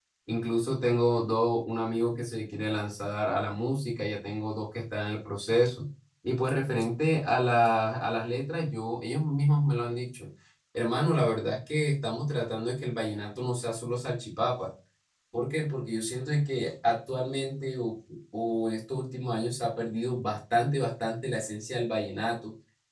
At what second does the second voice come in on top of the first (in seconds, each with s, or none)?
none